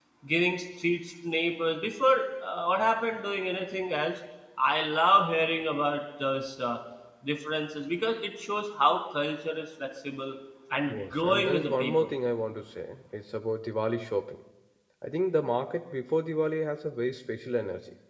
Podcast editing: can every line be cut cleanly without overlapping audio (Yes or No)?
No